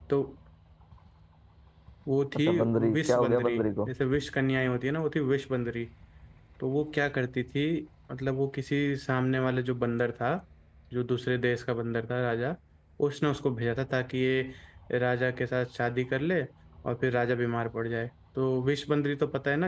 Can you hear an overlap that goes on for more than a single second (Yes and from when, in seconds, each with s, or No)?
Yes, from 2.5 s